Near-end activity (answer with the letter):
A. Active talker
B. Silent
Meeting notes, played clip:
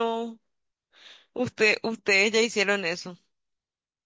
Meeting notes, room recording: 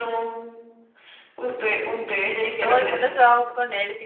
A